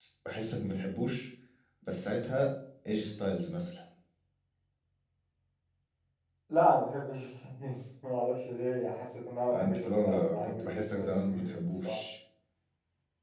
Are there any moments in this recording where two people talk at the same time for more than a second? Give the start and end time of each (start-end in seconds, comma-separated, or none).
9.5-11.4